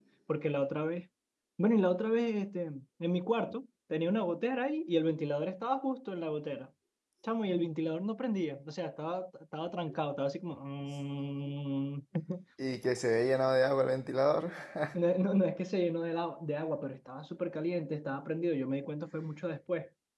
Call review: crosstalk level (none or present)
none